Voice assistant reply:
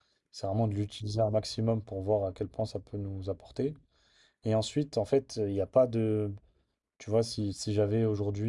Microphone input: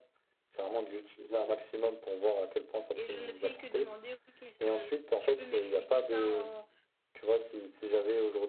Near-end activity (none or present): present